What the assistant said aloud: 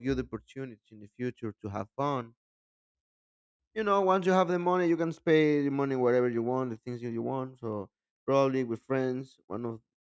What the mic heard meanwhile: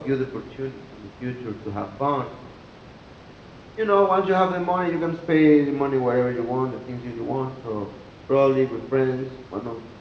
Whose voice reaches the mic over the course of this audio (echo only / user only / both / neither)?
echo only